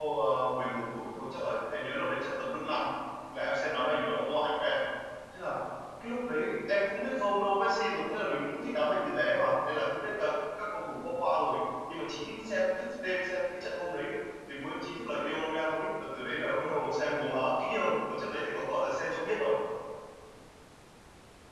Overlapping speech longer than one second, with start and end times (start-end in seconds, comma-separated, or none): none